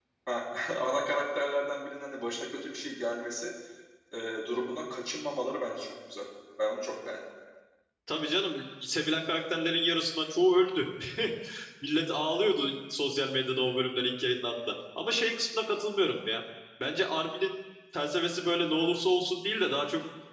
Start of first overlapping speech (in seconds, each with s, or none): none